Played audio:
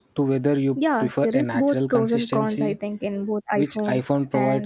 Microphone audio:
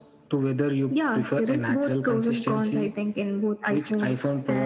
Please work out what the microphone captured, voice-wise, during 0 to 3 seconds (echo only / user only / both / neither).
echo only